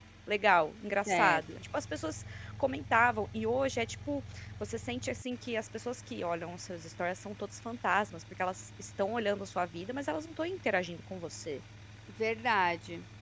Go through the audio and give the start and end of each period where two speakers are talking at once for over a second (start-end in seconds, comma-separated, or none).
none